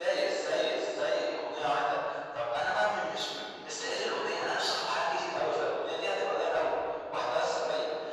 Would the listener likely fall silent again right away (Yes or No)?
Yes